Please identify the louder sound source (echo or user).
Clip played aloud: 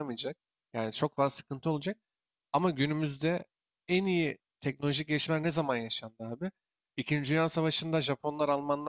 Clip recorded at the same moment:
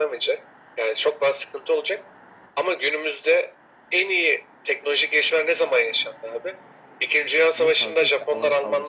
echo